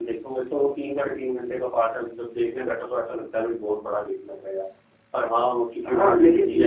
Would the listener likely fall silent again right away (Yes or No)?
No